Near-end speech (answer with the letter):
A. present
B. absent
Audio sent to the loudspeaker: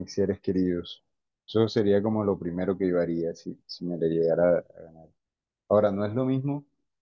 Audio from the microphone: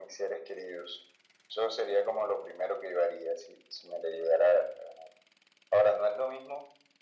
B